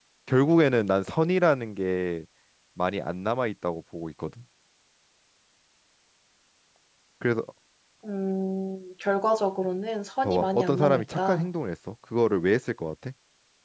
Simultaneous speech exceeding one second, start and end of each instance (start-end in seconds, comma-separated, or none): 10.2-11.5